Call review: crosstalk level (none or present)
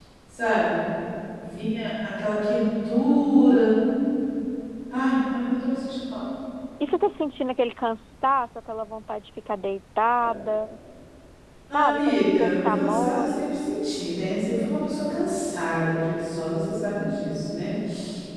present